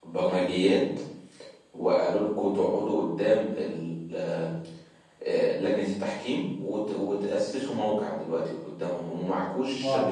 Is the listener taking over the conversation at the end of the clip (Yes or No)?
Yes